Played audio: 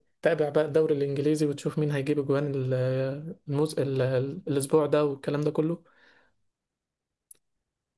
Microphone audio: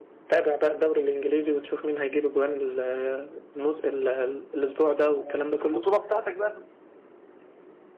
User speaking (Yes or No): Yes